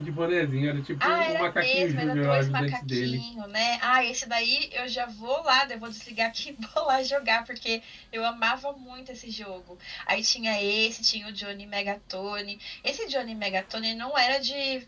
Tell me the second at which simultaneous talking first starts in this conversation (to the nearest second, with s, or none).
1 s